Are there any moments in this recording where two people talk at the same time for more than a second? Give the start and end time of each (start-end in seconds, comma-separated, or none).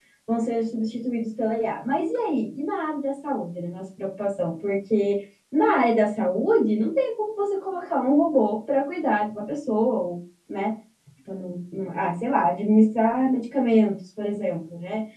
none